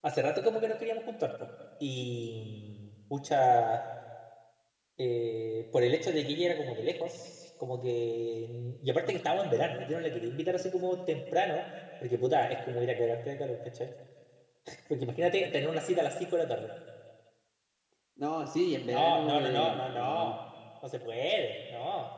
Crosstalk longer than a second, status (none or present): present